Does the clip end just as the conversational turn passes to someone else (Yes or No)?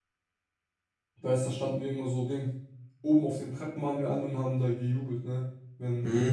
No